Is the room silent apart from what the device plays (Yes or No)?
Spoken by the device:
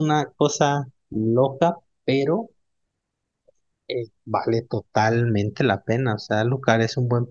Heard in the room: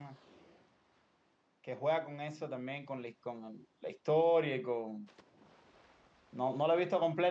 No